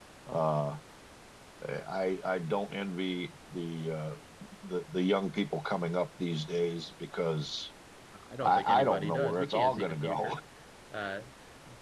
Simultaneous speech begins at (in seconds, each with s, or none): 8.4 s